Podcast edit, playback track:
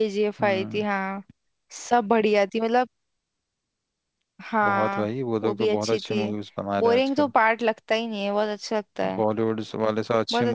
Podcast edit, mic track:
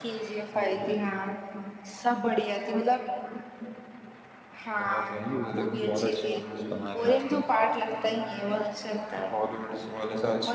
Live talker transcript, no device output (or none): none